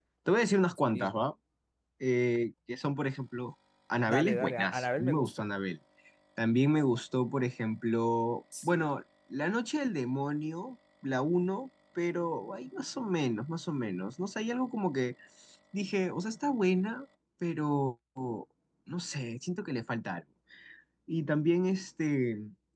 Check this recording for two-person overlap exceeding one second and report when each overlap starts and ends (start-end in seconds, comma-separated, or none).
4.1-5.5